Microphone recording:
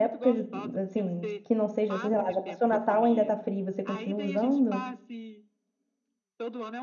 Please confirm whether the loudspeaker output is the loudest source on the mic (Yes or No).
No